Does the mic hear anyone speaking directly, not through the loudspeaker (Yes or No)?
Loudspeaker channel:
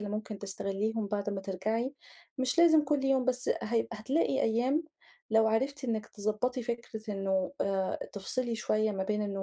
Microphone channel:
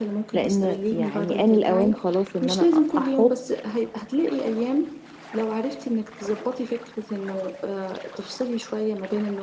Yes